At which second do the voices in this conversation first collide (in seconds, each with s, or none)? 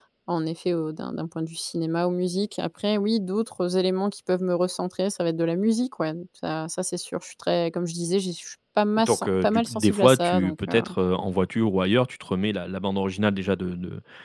9.0 s